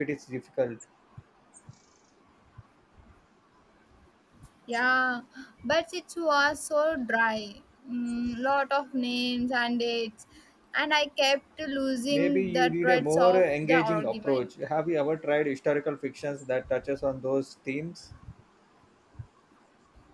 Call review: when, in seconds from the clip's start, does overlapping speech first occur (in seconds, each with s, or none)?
12.1 s